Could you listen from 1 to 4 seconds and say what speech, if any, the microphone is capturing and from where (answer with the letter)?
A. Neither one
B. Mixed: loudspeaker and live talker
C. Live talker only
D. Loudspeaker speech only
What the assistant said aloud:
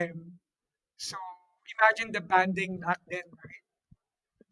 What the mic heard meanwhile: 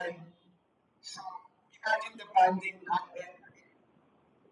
D